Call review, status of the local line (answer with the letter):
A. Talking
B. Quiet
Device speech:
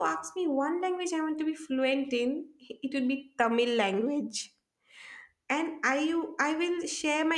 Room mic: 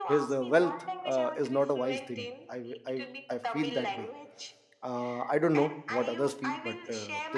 A